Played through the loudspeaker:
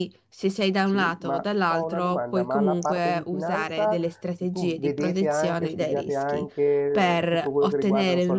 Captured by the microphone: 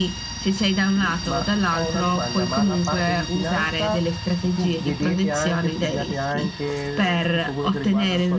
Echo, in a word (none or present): present